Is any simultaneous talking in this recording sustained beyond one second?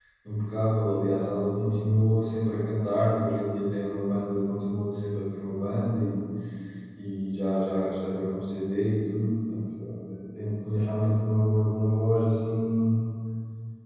No

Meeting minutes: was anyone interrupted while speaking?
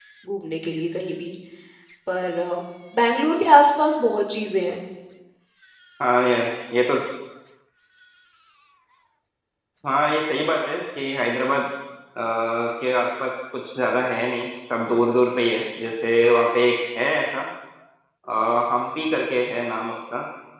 No

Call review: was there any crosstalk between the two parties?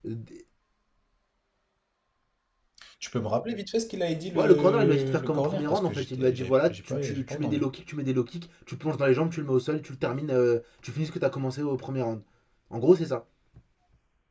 Yes, from 4.4 s

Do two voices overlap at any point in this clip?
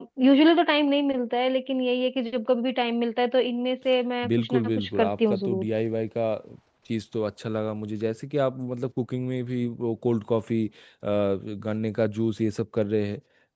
Yes, from 4.2 s

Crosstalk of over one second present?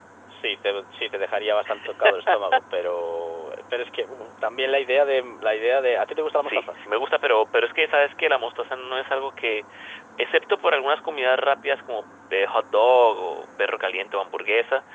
No

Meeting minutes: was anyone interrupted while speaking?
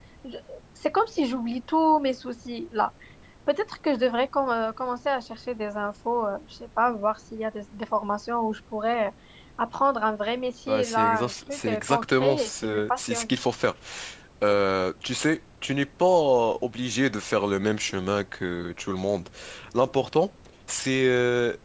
Yes, from 10.7 s

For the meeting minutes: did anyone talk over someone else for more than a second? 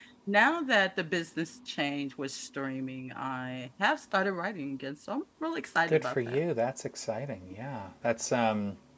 No

